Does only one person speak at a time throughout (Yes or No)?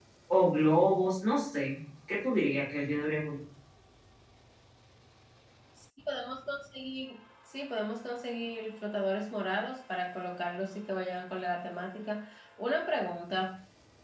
Yes